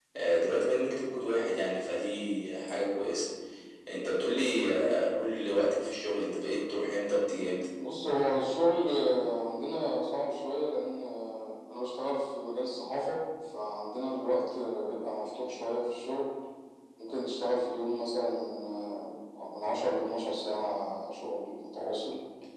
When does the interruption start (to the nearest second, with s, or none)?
none